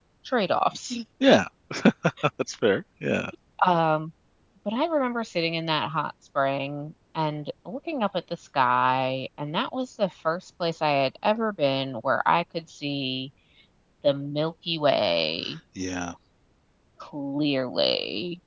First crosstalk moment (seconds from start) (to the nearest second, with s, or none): none